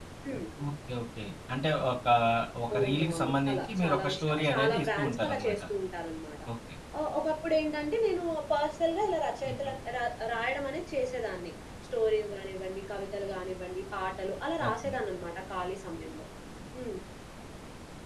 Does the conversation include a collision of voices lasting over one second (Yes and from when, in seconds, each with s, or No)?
Yes, from 2.8 s